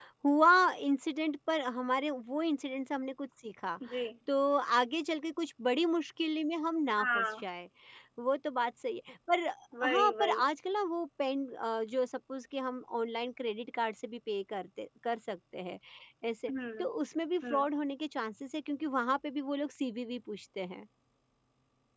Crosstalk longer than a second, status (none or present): none